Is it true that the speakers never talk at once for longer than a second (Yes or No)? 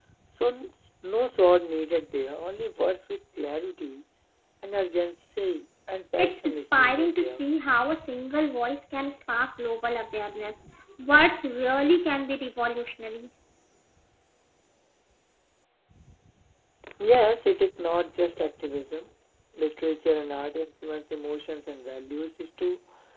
No